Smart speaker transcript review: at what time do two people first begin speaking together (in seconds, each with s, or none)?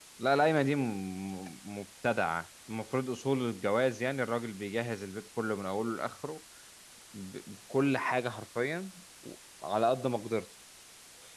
none